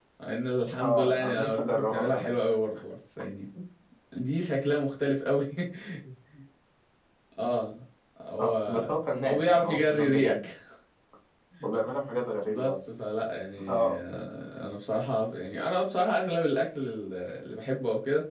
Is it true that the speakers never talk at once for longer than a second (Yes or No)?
No